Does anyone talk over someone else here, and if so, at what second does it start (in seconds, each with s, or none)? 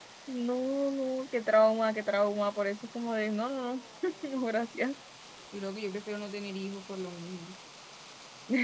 none